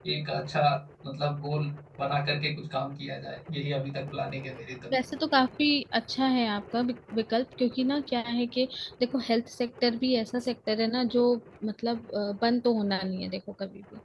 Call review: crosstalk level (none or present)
none